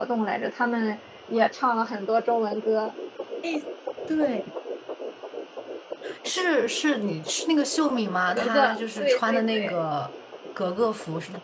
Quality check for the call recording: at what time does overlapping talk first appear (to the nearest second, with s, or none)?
8 s